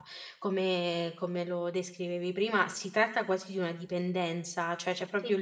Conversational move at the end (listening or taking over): listening